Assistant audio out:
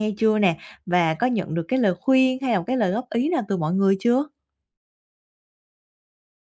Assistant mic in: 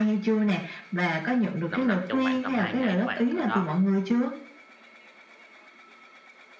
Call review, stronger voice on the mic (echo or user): echo